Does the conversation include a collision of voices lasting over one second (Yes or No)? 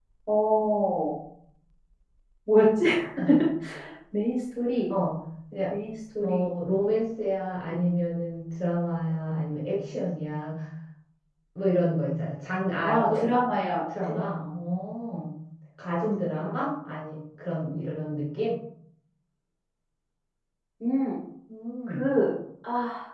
No